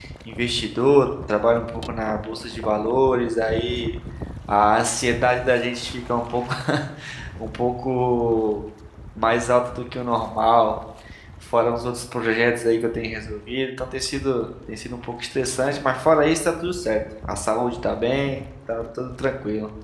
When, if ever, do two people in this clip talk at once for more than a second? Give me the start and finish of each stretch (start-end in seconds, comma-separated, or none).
none